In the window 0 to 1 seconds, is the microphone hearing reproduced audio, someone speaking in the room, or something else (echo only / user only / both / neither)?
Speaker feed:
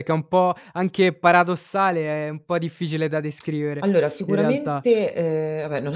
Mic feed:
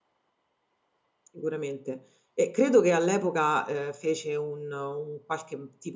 neither